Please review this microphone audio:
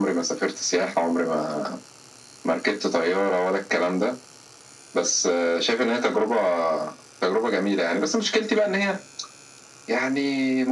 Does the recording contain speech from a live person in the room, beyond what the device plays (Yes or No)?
No